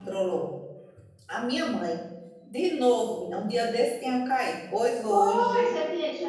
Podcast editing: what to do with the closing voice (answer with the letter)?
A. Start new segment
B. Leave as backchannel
A